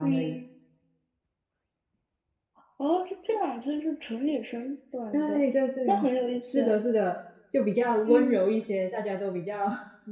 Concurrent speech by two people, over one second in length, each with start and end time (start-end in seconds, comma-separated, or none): none